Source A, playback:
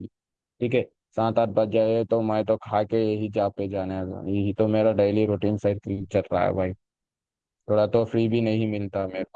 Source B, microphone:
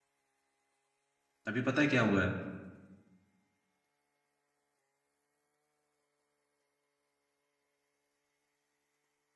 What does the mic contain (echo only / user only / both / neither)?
user only